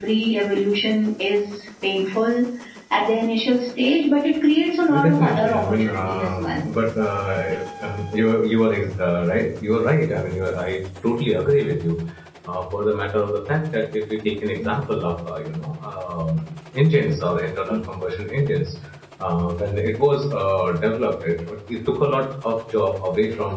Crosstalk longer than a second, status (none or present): present